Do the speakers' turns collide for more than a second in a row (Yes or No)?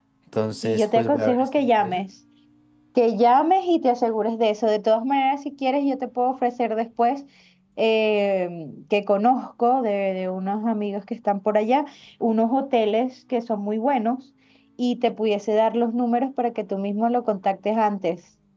Yes